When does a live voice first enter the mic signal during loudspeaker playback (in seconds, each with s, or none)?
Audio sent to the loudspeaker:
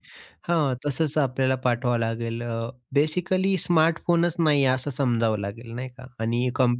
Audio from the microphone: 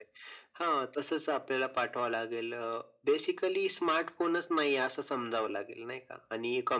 none